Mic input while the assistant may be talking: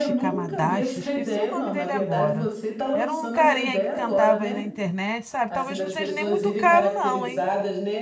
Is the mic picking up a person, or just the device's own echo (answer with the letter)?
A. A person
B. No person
A